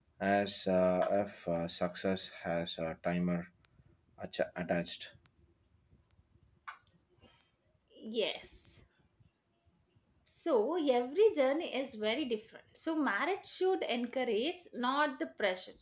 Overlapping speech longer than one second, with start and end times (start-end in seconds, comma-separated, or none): none